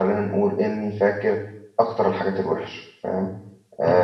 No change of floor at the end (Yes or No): No